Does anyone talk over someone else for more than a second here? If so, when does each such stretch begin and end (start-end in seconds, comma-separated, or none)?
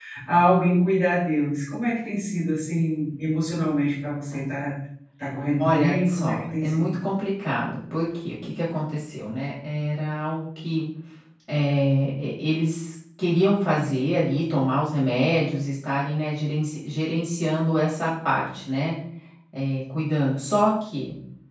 5.6-6.9